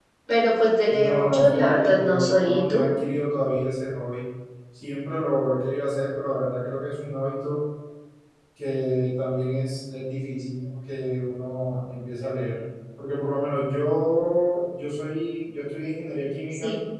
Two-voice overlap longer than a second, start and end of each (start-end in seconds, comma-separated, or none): 0.9-2.8